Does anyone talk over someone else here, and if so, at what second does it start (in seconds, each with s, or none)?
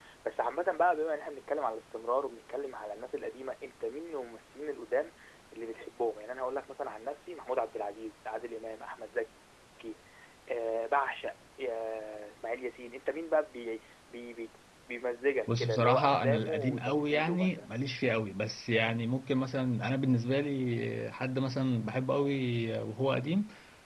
15.5 s